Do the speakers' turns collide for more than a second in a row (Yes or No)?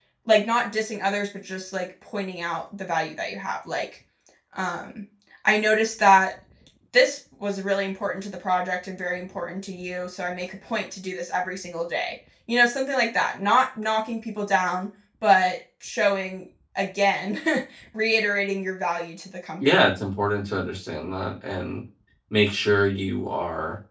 No